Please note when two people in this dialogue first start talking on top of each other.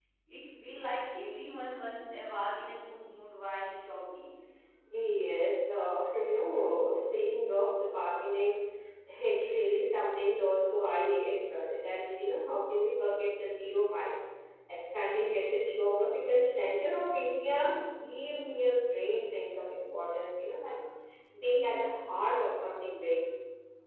none

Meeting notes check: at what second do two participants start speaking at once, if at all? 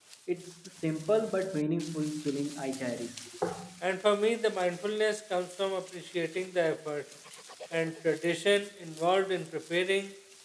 none

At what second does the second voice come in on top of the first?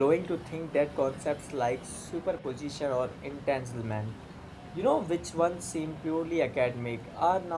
none

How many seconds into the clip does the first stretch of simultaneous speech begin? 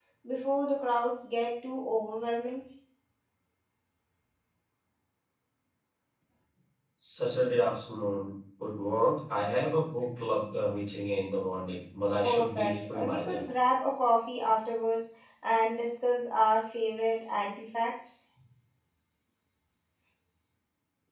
12 s

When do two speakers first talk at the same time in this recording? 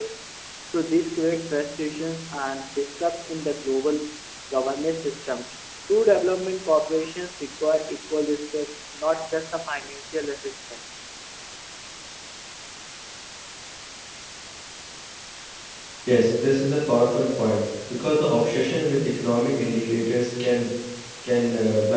none

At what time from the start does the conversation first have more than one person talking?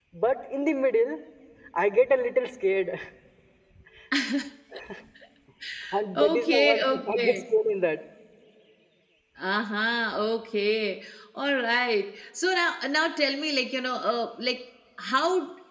6 s

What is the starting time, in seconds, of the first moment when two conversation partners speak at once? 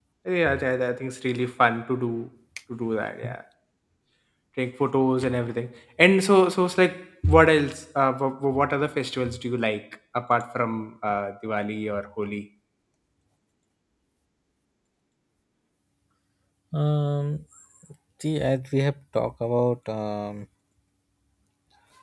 none

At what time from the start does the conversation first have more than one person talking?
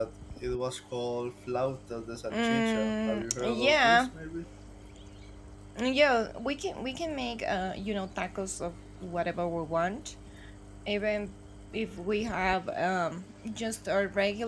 2 s

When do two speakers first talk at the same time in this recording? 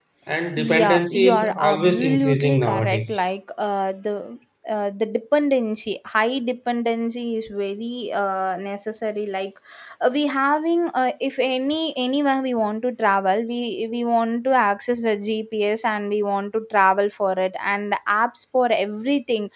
1 s

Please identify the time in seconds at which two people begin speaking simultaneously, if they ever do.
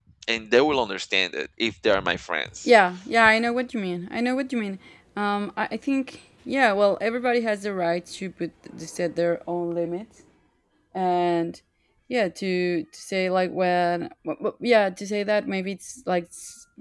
none

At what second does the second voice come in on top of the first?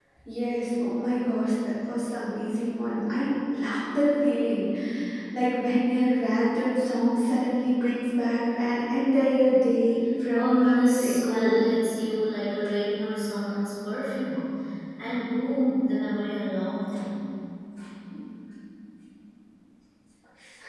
10 s

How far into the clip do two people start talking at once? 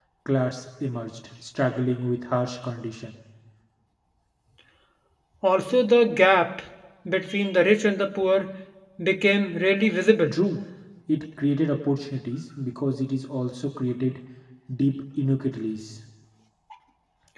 none

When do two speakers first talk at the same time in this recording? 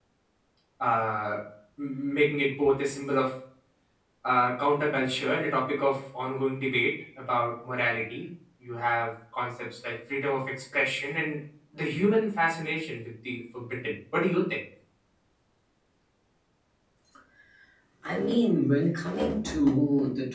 none

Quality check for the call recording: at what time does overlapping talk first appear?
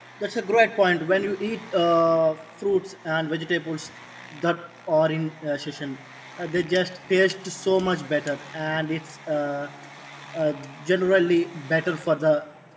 none

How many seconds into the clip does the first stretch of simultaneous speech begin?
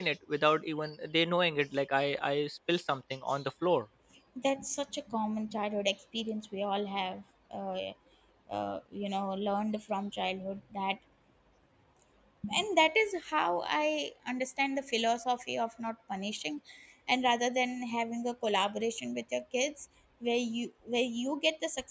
none

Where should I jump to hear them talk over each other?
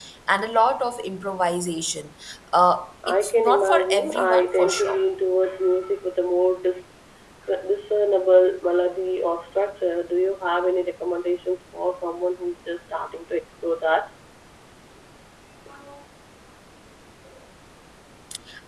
3 s

